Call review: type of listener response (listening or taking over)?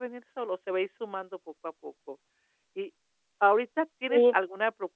listening